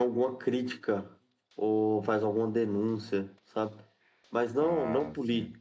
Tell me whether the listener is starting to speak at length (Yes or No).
No